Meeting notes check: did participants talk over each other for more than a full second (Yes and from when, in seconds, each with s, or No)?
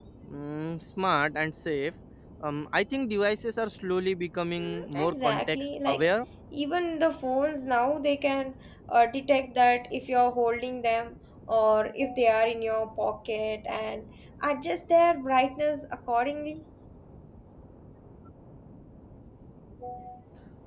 Yes, from 4.6 s